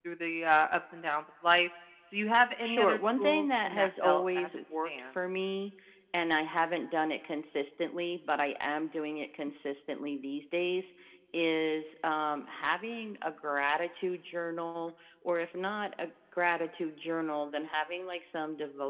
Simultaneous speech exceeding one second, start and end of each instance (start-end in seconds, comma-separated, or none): 2.6-5.4